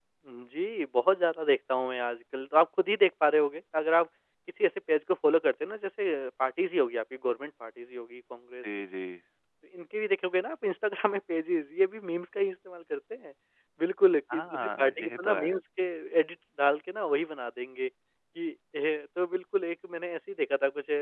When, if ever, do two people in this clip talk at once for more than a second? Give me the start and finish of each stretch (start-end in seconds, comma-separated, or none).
14.3-15.6